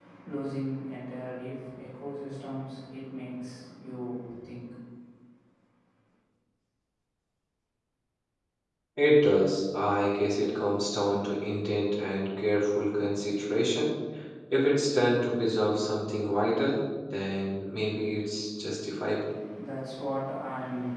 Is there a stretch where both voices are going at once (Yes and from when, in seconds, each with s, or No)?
No